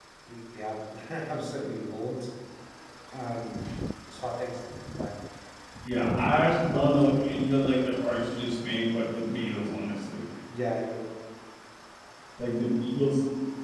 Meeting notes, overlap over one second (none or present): none